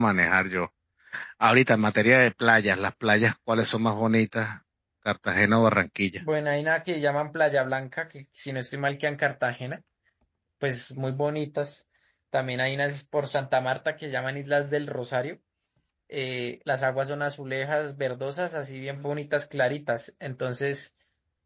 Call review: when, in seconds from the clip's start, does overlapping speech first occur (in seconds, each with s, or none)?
none